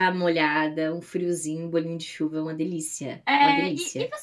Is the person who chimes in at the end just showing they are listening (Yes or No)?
No